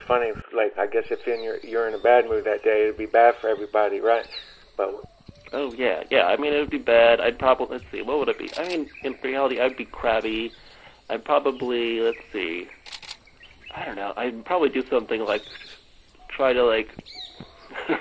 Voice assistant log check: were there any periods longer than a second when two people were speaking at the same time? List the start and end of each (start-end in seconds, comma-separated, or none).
none